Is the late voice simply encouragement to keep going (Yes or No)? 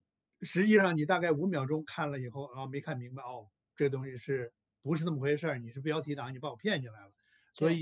No